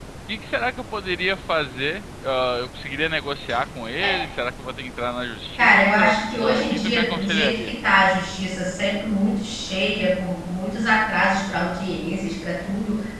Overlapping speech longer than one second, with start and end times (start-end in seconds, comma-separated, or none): 5.6-7.7